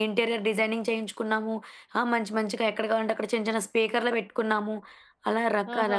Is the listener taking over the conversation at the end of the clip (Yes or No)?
Yes